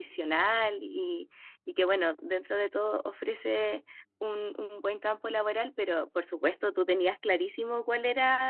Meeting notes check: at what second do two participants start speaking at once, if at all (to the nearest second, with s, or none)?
none